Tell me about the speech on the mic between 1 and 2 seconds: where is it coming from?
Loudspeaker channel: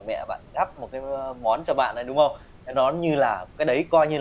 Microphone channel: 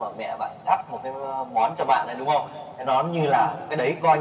echo only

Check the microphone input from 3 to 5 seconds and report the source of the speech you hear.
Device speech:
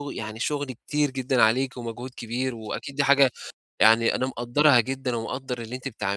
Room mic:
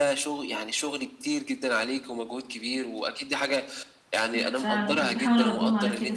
both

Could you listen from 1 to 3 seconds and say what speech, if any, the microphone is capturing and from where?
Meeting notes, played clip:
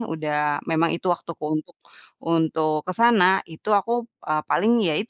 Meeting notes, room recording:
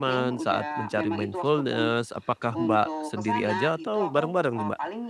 both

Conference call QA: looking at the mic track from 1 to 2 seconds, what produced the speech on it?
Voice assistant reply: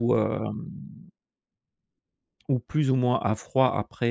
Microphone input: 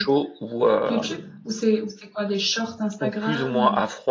both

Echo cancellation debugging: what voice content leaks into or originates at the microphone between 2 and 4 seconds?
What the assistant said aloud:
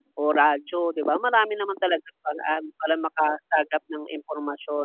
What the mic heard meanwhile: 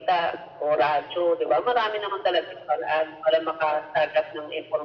echo only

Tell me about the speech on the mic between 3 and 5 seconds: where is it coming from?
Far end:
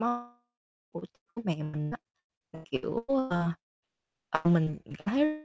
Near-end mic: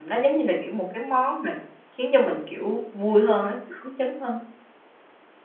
user only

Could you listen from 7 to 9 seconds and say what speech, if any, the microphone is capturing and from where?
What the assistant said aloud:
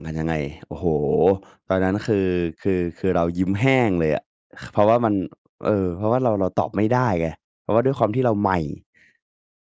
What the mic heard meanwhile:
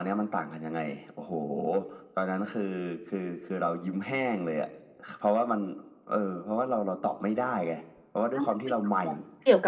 both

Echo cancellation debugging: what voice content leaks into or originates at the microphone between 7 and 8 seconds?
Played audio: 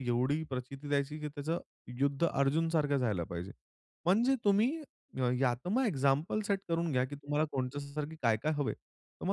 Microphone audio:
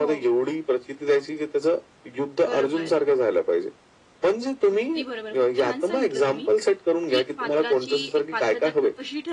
both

